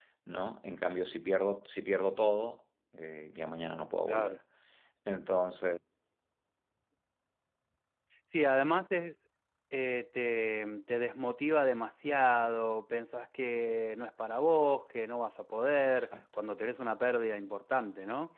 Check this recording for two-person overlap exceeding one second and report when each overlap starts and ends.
none

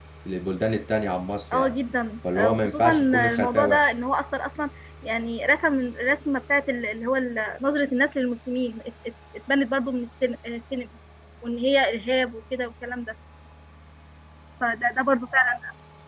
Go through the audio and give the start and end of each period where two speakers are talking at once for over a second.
2.4-3.9

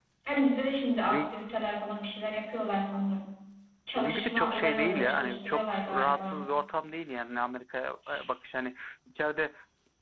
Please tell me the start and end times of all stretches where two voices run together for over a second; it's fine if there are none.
4.0-6.4

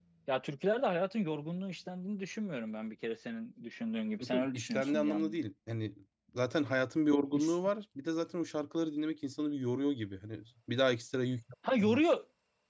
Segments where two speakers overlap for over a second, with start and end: 4.2-5.4

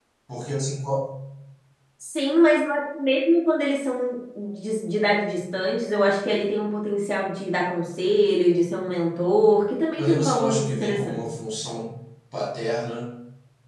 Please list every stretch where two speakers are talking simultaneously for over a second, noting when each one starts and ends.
10.0-11.3

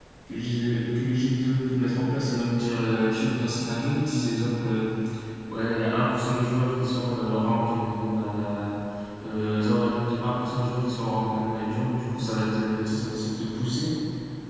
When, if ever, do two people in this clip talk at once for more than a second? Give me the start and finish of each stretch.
none

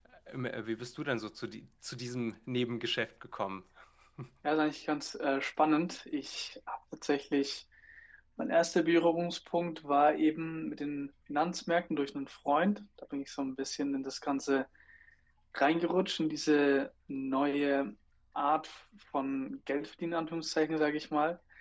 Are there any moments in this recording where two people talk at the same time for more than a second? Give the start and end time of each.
none

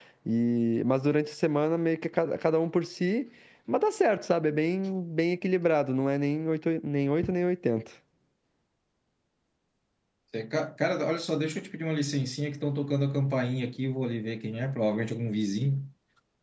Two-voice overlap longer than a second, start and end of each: none

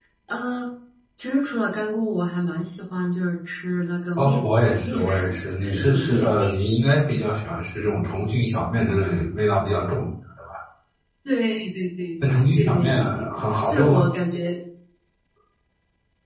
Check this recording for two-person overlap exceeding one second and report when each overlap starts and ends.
4.2-6.6, 12.5-14.1

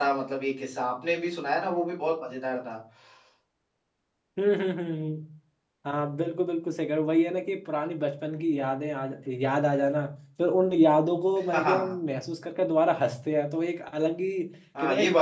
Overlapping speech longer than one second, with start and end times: none

